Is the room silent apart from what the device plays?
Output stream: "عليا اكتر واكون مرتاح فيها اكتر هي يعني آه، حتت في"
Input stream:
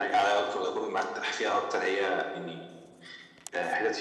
Yes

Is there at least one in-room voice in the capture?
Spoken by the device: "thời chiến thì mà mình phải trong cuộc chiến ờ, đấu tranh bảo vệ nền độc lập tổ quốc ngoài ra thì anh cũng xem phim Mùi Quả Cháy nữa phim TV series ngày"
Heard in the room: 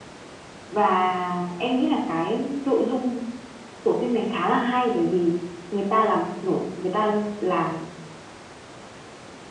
Yes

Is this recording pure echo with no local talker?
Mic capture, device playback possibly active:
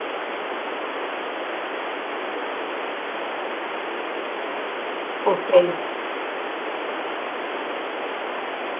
No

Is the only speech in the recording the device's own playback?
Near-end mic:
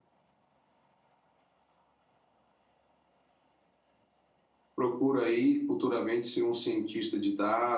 No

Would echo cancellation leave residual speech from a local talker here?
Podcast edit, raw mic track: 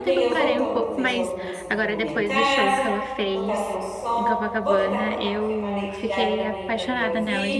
Yes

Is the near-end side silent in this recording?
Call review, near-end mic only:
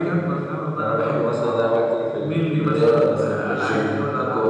Yes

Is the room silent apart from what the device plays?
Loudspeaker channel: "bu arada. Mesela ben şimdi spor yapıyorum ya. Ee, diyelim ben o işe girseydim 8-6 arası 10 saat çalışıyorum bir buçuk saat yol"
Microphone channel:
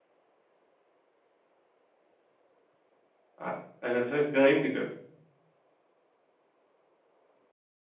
No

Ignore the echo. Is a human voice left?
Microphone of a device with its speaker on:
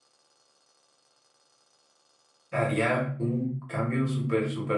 Yes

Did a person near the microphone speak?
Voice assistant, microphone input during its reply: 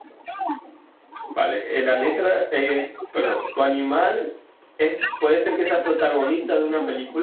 Yes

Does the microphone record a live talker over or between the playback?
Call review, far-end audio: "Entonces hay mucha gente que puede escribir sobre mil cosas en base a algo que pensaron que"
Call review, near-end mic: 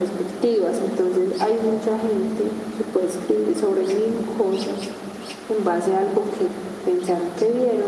No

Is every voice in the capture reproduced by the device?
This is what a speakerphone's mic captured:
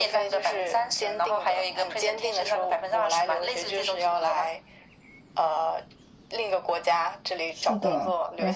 No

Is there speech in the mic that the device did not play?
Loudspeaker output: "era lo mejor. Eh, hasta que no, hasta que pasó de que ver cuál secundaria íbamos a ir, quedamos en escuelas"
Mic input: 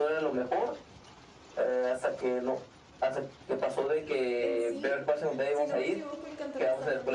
Yes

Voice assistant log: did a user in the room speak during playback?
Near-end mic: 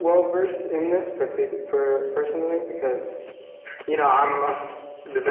No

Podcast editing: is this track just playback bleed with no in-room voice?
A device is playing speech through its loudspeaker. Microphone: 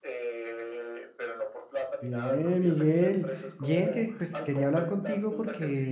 No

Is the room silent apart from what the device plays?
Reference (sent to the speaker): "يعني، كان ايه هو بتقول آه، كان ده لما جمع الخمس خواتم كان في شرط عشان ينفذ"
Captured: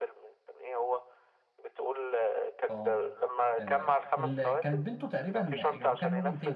No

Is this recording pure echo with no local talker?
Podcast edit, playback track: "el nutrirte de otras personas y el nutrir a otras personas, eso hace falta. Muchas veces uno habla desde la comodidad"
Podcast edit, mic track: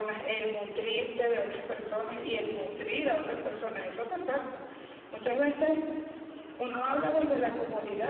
Yes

